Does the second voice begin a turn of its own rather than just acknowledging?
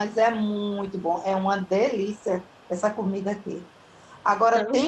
No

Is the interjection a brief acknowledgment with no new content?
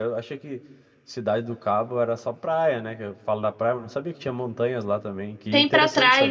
No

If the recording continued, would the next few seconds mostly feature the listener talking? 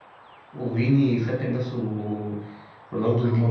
Yes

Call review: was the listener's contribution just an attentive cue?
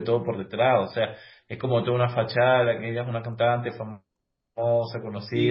No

